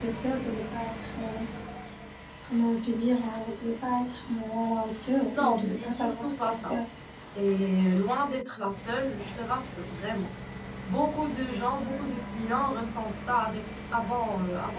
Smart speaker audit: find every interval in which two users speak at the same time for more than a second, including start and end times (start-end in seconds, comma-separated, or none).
5.3-6.8